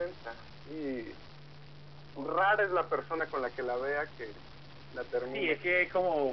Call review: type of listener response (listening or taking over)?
taking over